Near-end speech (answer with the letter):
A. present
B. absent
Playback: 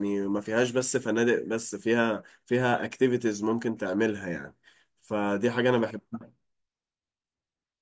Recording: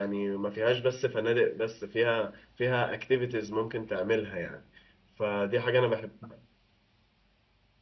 B